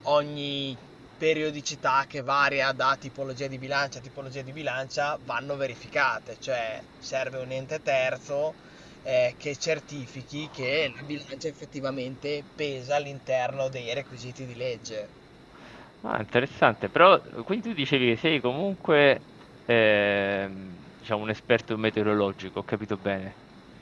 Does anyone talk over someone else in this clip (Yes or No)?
No